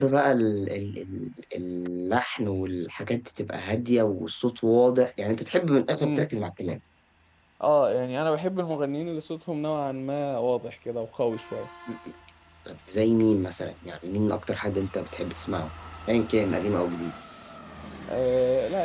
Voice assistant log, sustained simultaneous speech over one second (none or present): none